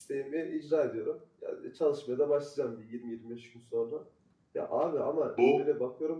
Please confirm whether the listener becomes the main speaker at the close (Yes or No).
No